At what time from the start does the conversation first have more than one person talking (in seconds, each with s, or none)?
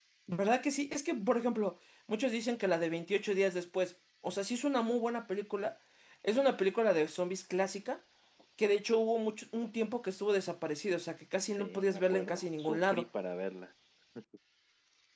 11.5 s